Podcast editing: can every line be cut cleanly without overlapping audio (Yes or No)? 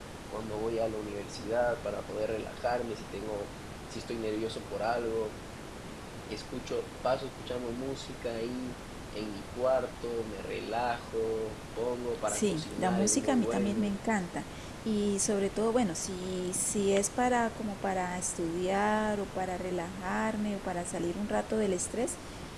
No